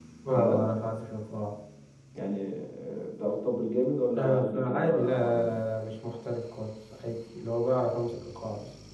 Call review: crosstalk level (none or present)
present